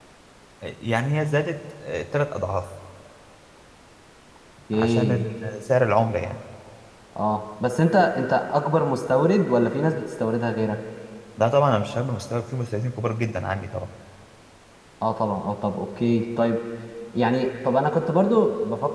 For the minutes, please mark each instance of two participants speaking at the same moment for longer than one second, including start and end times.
none

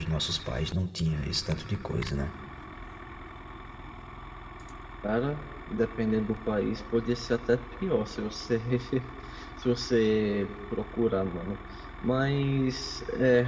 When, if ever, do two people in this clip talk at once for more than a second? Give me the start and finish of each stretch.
none

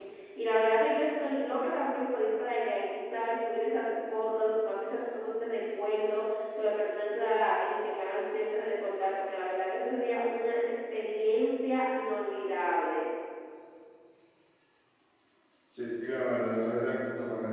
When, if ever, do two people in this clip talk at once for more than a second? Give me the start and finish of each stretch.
none

